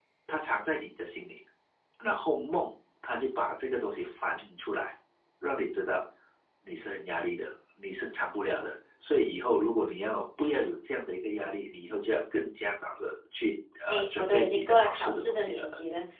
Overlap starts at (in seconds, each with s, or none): 13.9 s